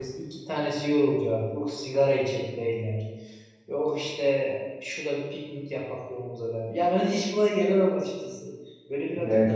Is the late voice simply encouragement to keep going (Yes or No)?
Yes